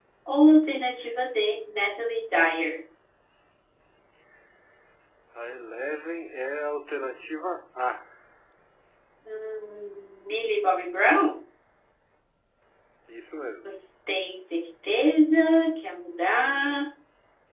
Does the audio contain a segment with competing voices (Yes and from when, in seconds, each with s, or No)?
No